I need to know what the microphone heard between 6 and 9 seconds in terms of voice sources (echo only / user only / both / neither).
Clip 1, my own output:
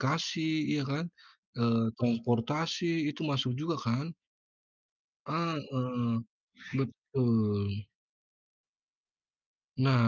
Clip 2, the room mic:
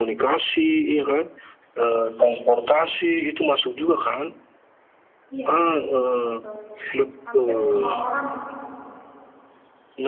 both